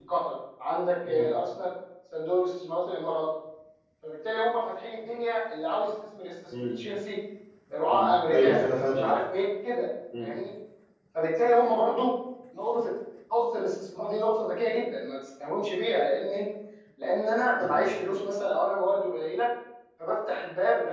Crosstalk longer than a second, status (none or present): present